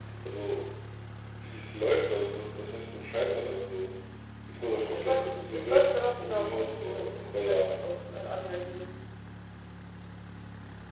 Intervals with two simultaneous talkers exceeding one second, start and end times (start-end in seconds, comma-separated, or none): 4.8-7.6